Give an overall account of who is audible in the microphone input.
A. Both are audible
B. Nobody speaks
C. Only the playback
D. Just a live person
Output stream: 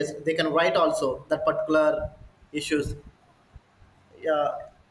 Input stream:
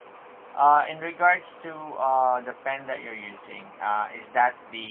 D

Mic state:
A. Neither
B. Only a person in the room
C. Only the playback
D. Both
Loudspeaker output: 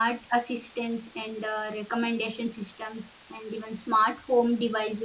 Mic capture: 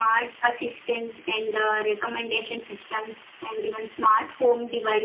C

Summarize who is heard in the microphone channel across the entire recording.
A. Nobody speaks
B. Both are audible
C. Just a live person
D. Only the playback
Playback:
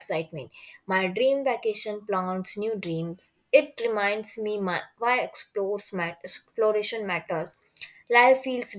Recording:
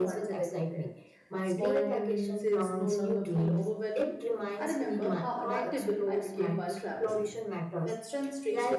B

